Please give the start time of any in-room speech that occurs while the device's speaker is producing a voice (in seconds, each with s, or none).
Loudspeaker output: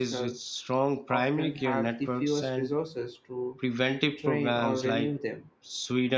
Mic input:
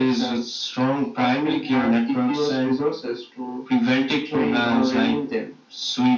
none